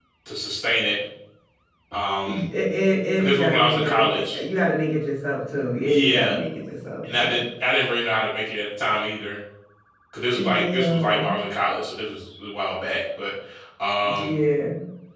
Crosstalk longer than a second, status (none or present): present